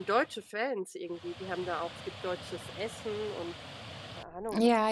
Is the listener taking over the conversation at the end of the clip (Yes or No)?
Yes